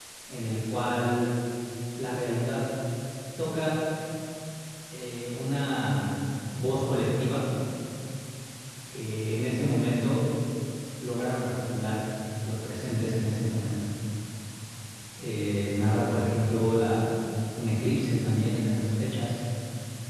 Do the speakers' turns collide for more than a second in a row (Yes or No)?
No